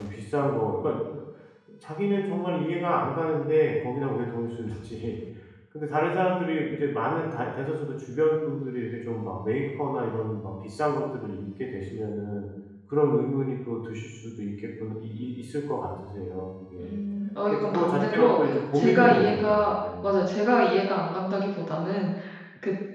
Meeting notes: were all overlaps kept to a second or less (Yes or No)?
No